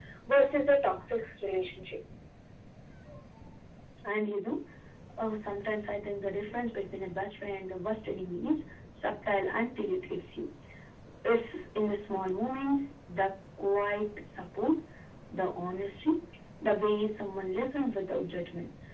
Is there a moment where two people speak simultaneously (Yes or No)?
No